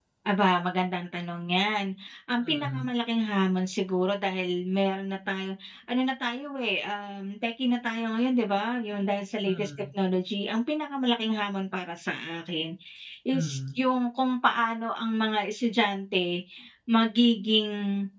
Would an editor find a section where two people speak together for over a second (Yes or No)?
No